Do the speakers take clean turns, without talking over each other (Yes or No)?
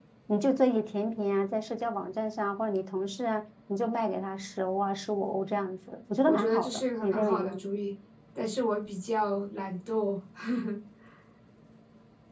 No